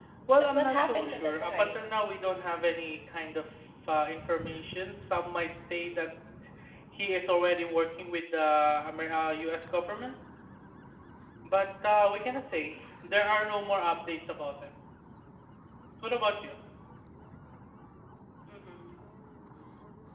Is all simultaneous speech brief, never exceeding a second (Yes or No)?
No